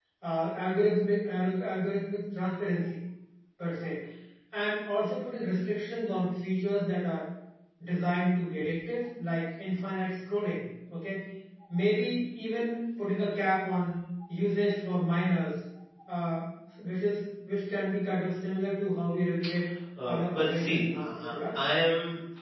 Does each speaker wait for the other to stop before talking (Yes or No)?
No